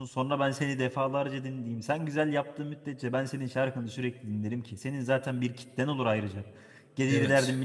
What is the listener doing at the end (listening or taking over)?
listening